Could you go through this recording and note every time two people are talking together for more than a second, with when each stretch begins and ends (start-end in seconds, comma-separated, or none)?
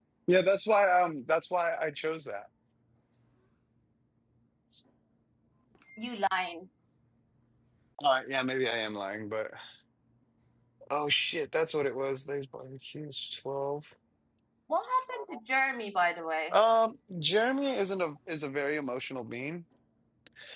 none